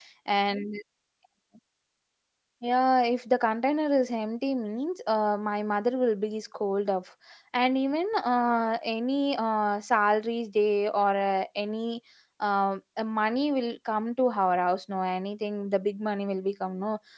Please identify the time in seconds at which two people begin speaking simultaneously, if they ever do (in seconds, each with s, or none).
none